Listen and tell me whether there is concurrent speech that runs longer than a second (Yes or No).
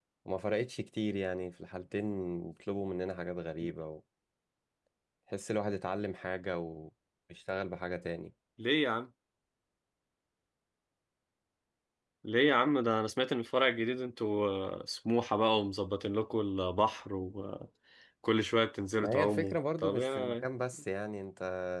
Yes